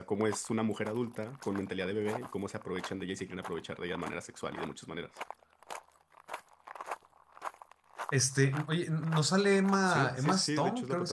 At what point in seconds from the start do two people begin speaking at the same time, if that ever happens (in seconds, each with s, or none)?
9.8 s